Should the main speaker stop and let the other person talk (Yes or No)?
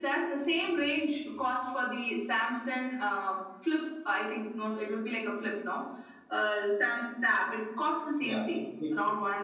No